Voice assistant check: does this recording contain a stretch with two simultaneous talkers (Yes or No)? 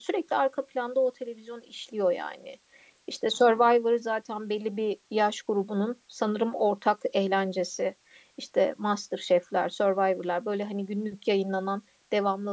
No